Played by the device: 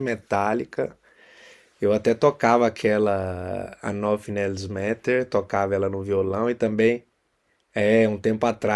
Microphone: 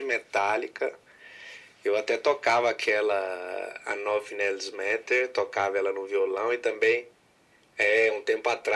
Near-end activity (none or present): none